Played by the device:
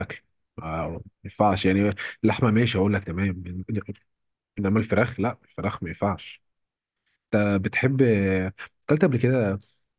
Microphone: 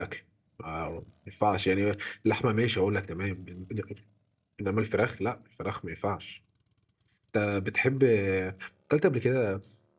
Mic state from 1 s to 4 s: echo only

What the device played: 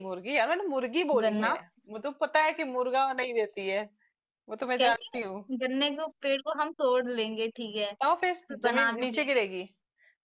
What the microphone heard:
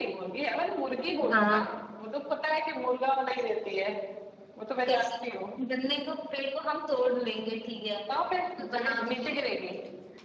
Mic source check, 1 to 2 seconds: both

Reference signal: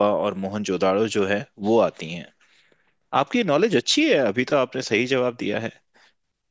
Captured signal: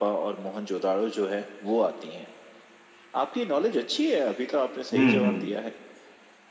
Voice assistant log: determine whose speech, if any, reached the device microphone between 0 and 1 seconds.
echo only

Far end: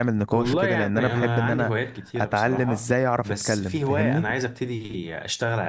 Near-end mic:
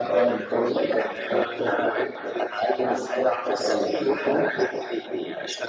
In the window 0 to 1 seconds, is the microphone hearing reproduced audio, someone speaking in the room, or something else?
echo only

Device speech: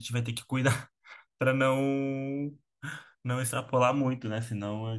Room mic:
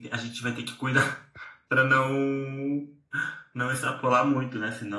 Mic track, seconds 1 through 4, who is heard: echo only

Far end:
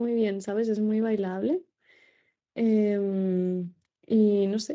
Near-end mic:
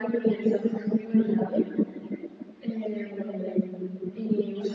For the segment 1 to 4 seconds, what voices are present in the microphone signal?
echo only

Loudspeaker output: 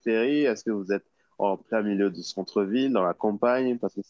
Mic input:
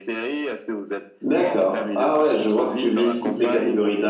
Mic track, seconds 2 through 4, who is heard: both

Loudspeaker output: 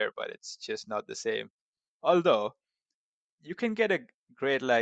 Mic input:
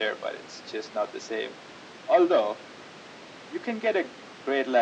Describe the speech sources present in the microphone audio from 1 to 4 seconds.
echo only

